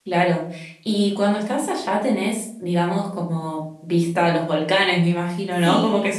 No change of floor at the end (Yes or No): No